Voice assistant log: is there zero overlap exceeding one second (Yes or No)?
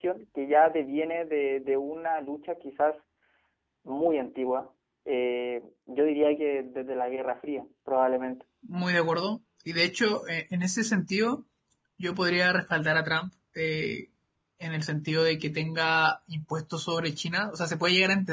Yes